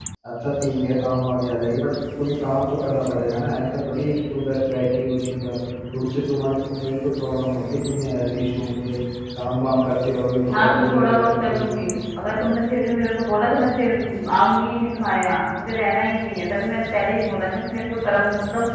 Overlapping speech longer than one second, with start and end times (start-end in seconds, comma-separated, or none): 10.5-11.8